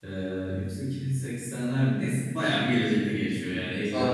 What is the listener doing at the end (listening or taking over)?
listening